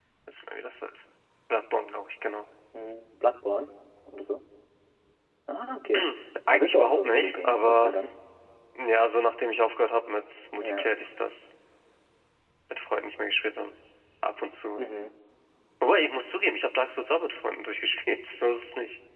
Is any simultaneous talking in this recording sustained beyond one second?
Yes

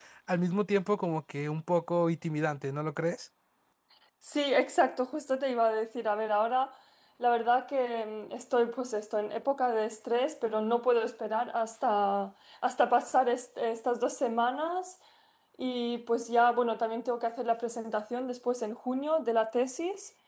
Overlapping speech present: No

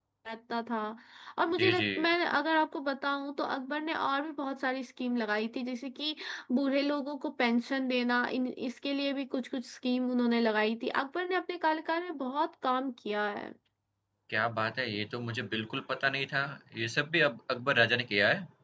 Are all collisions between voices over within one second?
Yes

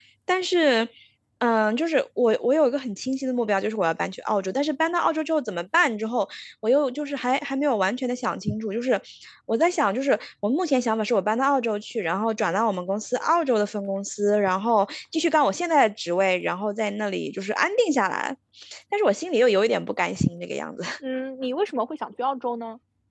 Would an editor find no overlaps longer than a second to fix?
Yes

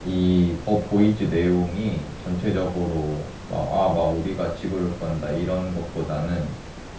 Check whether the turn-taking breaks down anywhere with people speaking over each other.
No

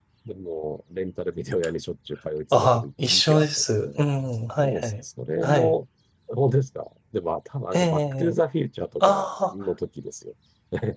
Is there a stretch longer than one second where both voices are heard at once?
Yes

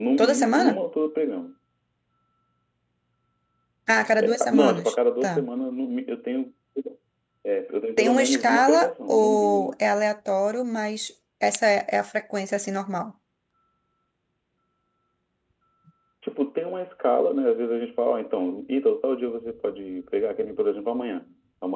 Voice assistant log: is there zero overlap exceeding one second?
No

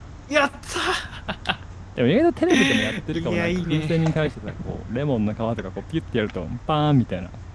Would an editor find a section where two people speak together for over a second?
Yes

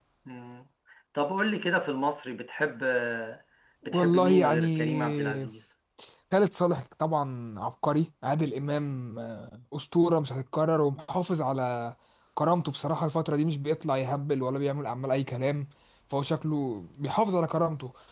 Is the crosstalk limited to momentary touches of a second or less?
No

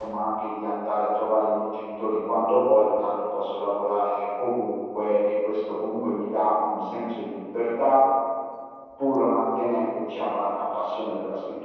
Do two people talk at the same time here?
No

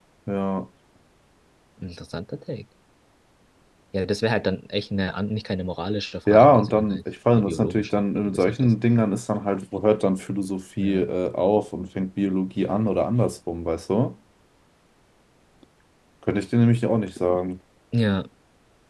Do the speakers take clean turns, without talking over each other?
No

